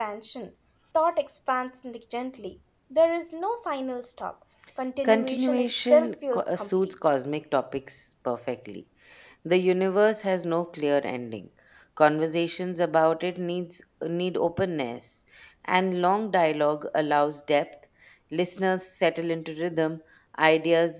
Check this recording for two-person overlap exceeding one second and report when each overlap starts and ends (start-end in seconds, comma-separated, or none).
5.0-6.9